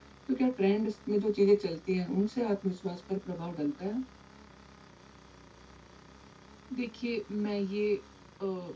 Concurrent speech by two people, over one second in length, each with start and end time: none

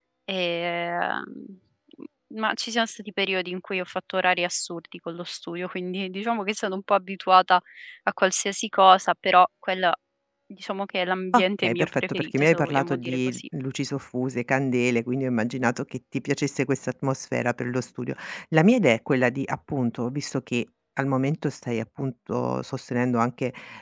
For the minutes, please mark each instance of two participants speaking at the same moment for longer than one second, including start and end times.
11.3-13.4

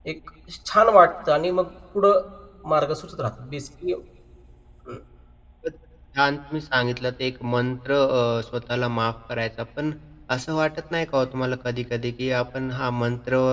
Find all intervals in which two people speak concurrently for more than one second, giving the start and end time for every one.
none

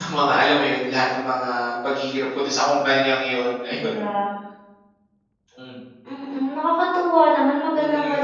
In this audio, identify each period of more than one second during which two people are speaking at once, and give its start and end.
none

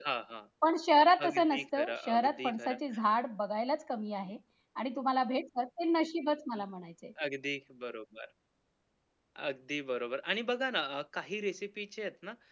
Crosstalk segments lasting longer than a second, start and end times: 1.3-2.8

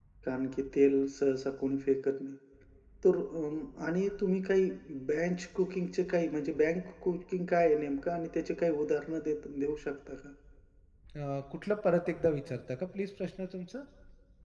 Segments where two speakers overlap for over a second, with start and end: none

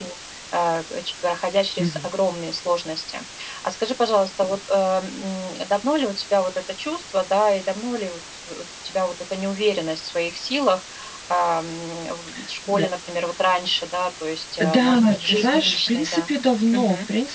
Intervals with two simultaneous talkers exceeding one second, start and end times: 14.6-16.3

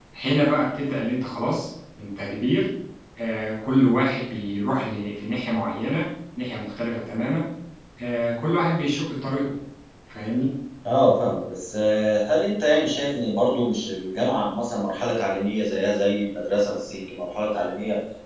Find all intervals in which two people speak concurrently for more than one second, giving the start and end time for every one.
none

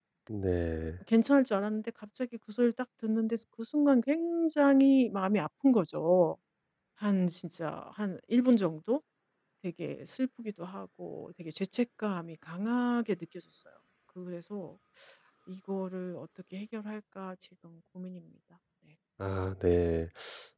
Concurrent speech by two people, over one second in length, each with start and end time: none

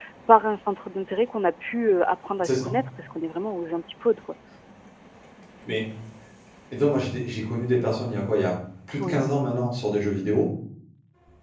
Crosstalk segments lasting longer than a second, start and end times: none

